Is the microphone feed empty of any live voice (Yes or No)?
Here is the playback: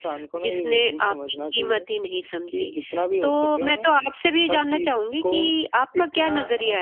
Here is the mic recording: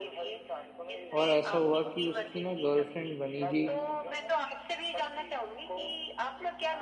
No